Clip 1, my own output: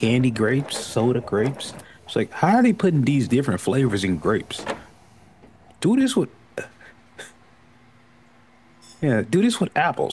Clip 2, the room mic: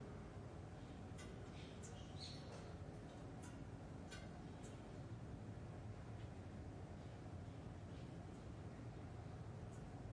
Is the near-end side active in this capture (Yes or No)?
No